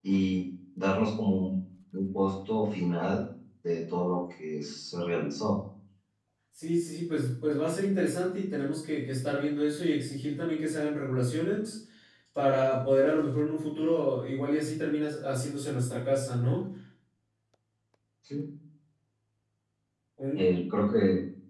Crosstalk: none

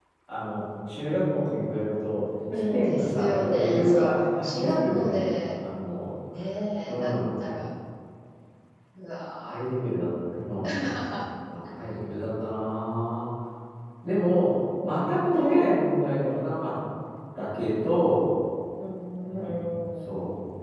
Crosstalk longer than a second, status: present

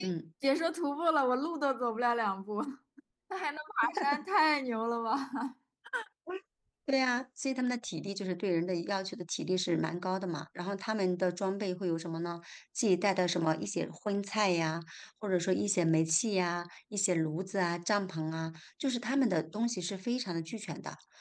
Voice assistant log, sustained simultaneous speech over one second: none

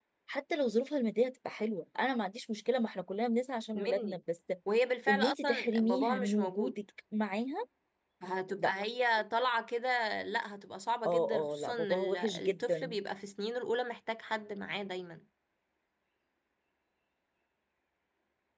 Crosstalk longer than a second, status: present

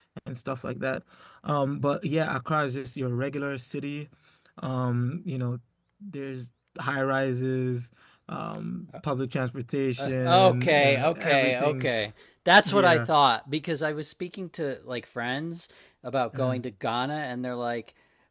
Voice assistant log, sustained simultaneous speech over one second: present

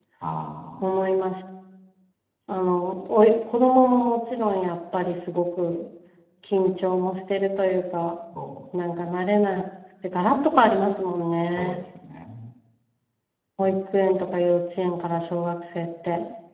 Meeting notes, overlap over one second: none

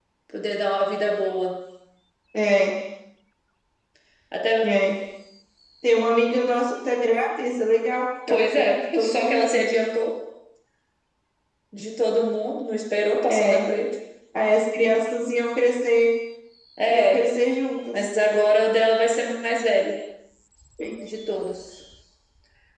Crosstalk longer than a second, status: present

